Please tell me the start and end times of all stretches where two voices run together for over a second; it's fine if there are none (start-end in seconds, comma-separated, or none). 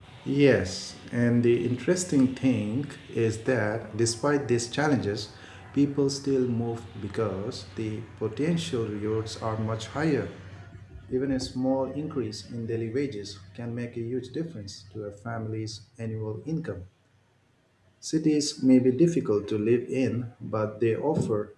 none